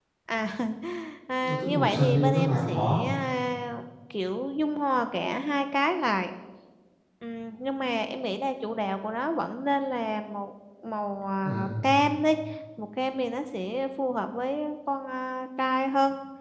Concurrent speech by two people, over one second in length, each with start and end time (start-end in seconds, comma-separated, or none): 1.4-3.0